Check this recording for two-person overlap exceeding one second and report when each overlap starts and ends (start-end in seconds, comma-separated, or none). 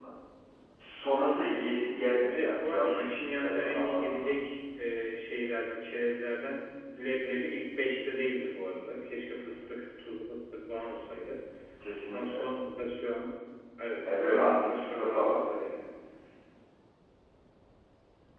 2.3-4.3, 14.0-15.4